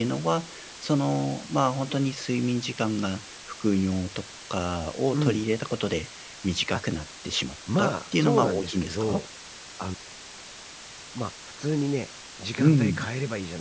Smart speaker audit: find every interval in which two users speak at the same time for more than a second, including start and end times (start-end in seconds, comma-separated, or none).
7.8-9.2